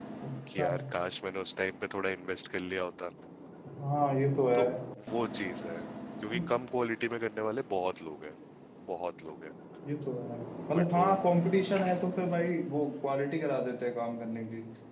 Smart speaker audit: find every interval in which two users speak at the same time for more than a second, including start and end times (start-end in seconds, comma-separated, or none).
none